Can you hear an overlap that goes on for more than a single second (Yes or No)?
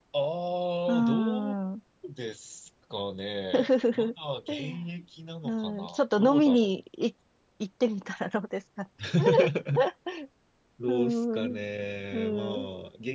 Yes